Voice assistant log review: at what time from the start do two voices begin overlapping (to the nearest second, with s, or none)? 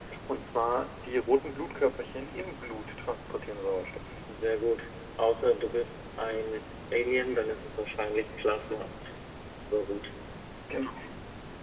none